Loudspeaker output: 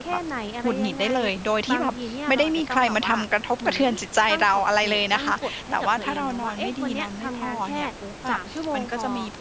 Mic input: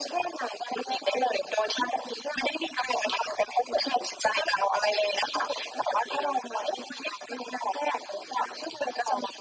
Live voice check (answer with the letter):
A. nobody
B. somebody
A